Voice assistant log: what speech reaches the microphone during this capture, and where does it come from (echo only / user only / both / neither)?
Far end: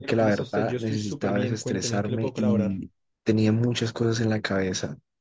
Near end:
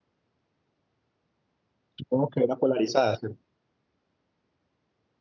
user only